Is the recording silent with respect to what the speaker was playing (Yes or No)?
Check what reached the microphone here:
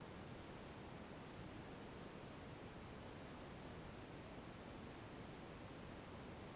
Yes